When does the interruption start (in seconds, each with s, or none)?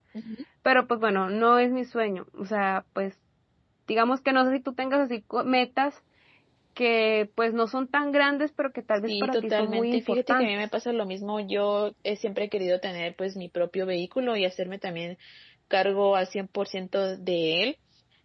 9.1 s